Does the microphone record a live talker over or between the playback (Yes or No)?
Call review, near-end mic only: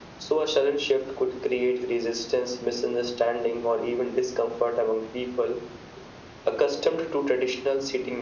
No